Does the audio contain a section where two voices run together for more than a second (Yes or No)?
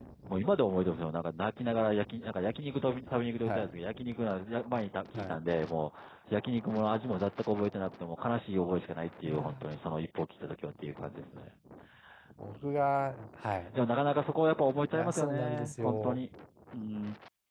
Yes